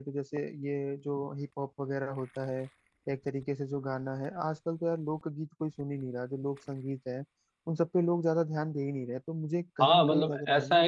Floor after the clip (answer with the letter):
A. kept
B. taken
B